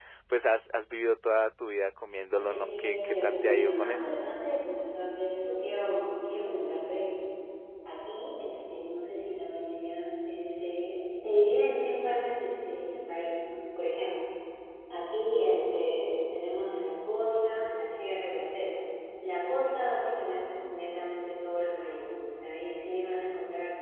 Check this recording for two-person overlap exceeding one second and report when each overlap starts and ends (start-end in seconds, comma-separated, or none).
2.3-4.2